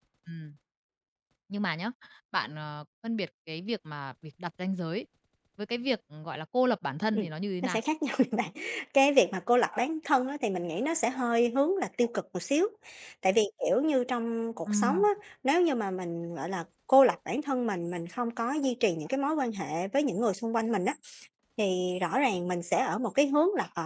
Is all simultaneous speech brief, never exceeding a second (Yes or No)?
Yes